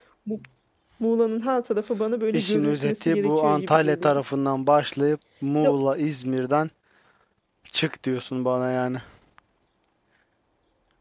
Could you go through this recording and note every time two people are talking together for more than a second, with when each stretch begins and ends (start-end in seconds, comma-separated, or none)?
2.3-4.2